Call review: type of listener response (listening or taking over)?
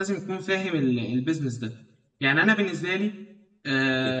taking over